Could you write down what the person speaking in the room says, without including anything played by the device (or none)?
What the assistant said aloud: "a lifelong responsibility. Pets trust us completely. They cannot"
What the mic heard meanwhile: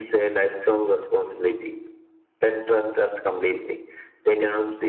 none